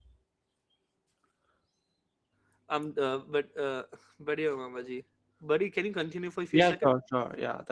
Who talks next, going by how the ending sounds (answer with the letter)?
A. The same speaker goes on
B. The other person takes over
B